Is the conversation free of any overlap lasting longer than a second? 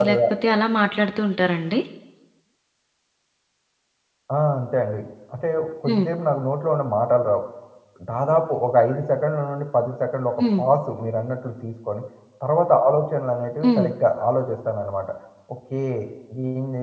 Yes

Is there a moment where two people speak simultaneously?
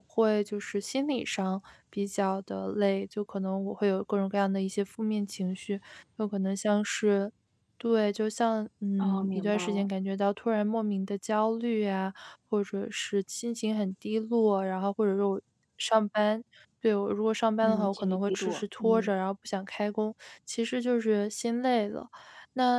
Yes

